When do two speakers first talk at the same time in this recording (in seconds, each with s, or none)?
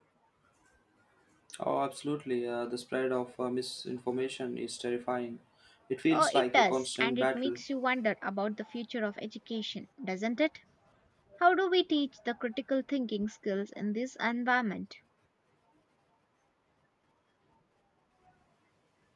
6.1 s